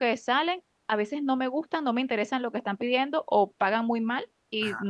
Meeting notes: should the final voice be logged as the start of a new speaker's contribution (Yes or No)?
No